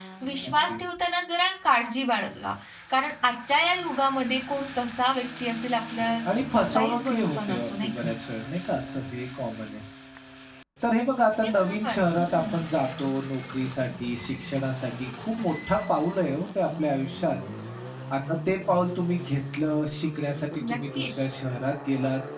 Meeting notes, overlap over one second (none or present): present